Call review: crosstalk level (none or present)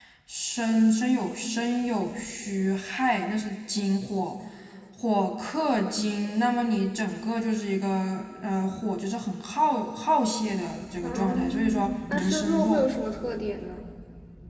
present